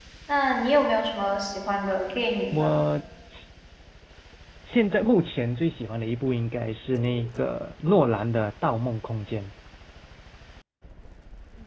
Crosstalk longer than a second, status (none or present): none